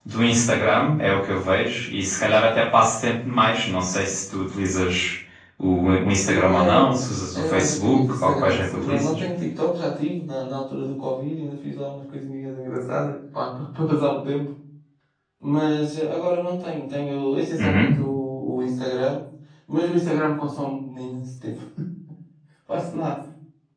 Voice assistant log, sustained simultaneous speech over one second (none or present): present